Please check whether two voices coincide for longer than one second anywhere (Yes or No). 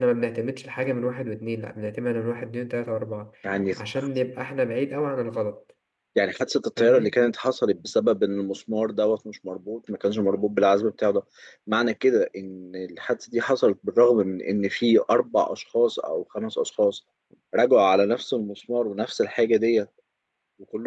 No